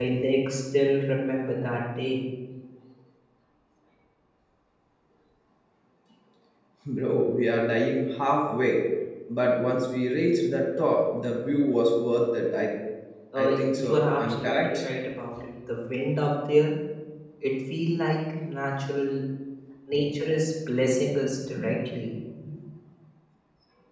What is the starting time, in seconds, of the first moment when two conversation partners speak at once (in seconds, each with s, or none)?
13.4 s